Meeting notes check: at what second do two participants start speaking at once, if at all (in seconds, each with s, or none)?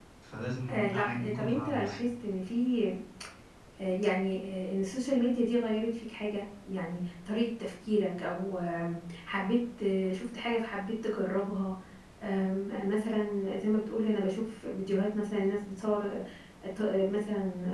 0.7 s